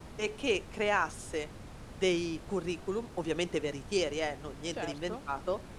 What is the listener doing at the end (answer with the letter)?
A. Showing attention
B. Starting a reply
A